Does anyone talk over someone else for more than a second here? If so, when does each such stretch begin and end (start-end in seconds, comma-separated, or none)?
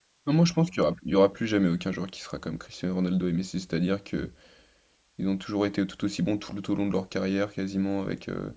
none